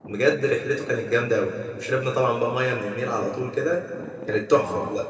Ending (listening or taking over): taking over